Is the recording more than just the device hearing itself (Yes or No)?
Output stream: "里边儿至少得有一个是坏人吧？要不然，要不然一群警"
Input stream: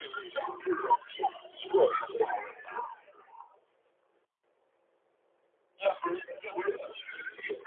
No